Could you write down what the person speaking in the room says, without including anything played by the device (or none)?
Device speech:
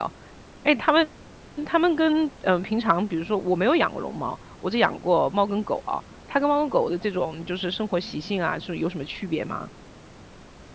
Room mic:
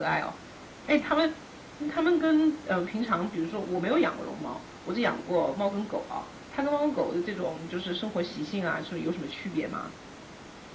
none